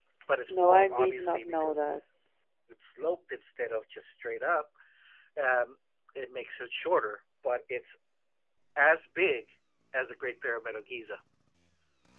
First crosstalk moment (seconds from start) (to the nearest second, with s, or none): 1 s